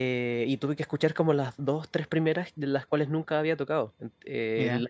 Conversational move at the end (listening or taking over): listening